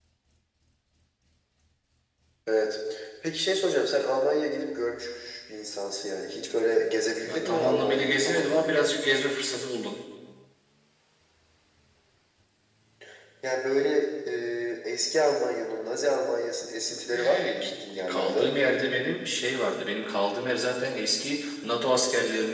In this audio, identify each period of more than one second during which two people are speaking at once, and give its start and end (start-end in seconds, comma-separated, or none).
7.2-8.9, 17.1-18.5